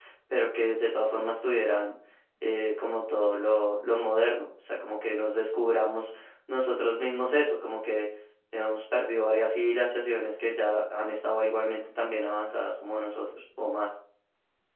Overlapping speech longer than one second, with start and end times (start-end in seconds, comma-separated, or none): none